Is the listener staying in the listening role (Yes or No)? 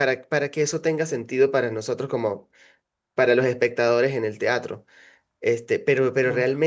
Yes